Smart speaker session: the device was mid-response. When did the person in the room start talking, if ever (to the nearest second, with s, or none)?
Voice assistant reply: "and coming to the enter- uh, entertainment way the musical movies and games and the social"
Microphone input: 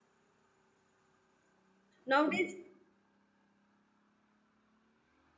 2 s